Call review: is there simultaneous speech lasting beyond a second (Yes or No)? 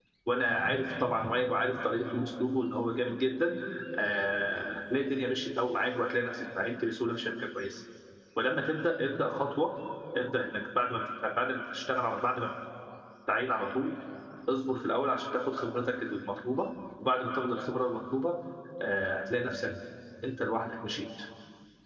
No